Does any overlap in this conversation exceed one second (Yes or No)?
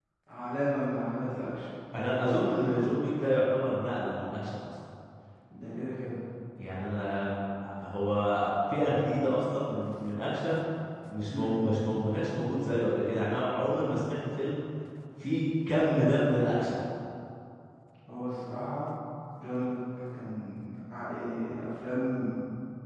No